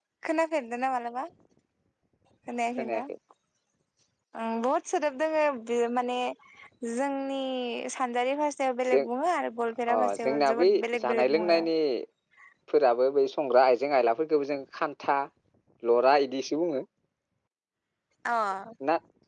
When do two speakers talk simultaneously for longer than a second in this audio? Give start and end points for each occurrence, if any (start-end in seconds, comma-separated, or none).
9.9-11.6